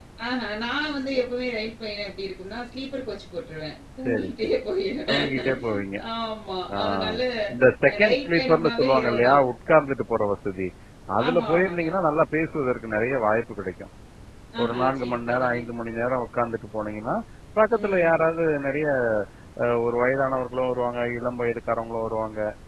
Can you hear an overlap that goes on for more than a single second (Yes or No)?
Yes